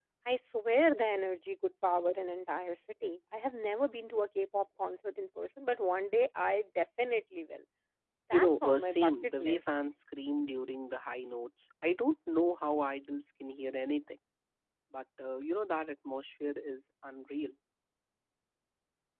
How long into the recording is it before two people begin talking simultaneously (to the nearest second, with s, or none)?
8 s